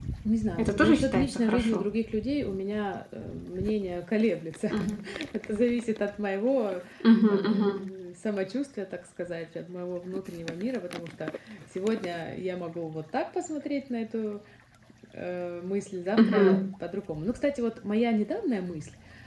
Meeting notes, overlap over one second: present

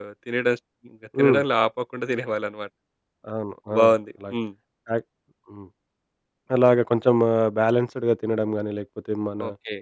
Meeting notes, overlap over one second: none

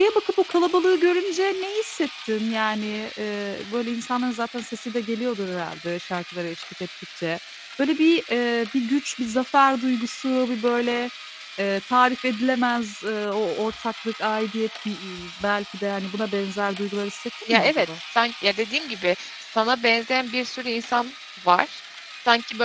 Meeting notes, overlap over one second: none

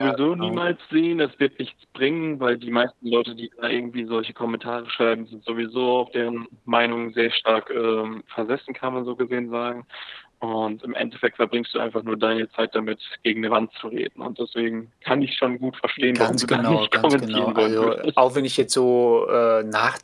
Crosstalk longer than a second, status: present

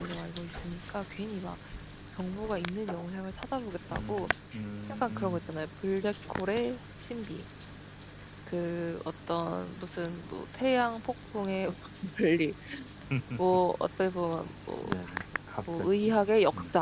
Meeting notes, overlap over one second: none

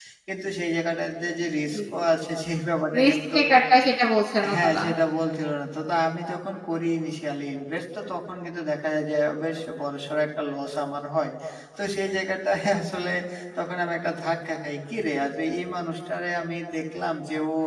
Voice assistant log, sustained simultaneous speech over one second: none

